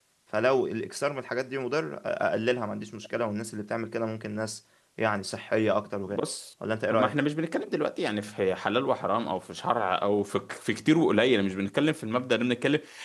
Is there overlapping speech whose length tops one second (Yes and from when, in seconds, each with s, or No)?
No